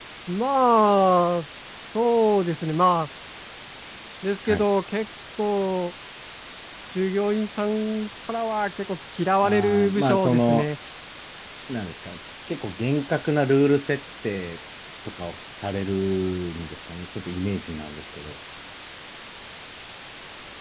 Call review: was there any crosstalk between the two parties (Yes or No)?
Yes